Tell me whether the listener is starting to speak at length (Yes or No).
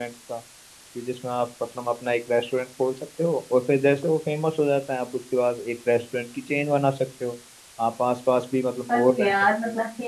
Yes